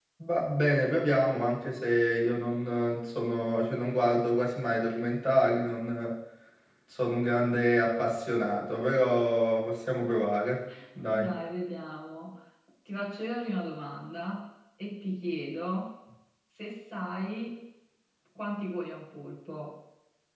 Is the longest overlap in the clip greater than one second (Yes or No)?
No